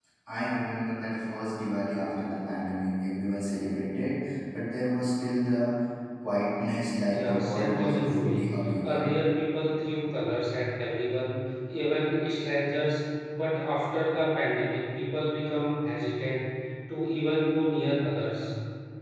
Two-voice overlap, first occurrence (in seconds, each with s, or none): 7.1 s